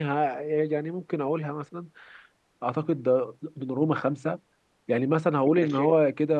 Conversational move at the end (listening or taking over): listening